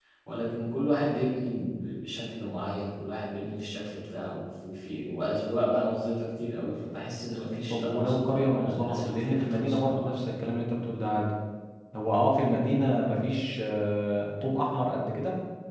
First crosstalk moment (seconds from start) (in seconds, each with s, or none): 7.7 s